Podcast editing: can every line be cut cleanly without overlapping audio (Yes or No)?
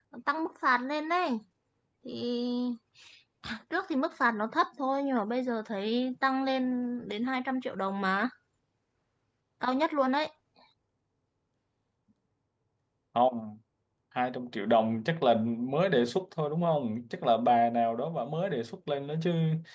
Yes